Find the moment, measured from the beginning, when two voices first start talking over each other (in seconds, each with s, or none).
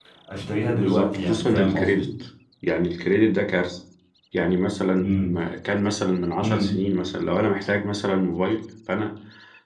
0.7 s